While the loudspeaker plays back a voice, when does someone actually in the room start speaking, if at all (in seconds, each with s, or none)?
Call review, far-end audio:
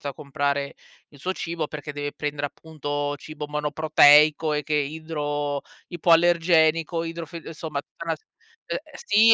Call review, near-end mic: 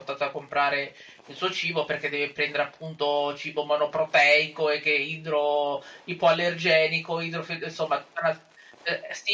none